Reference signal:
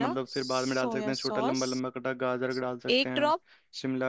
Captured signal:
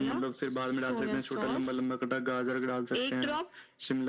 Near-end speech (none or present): none